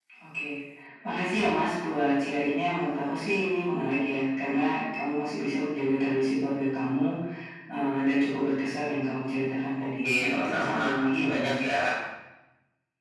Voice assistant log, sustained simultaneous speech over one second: present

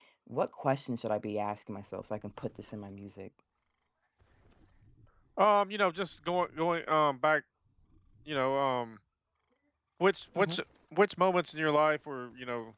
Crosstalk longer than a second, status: none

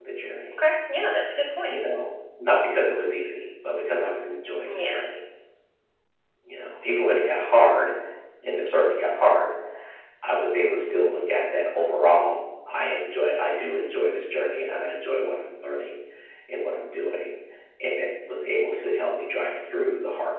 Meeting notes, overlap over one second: none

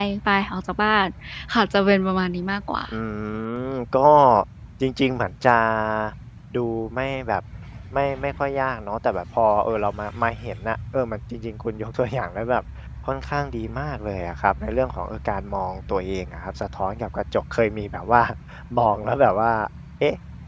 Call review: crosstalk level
none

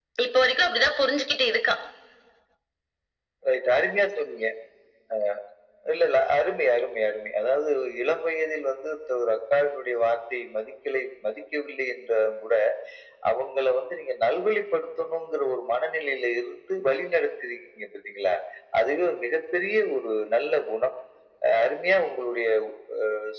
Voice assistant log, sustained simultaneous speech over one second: none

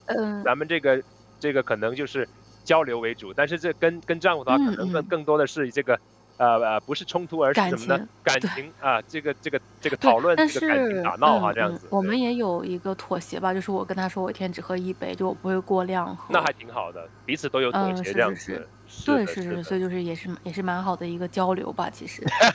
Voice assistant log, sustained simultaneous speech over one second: present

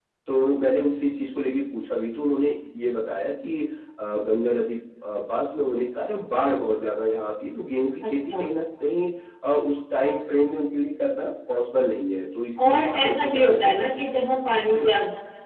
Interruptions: present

